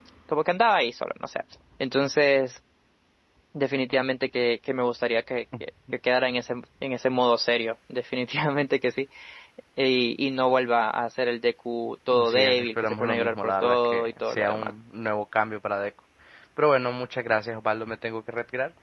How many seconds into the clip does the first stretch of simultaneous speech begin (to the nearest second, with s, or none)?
12 s